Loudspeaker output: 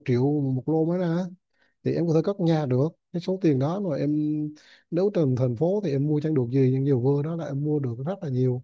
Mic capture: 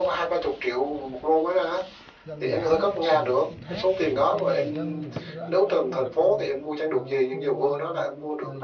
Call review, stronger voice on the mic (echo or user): echo